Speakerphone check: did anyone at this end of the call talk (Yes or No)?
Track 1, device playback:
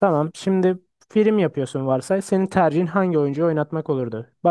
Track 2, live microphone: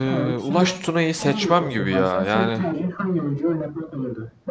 Yes